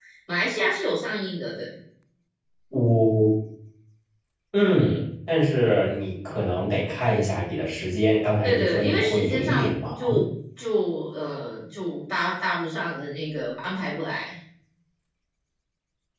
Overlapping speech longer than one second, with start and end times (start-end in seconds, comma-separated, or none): 8.4-9.9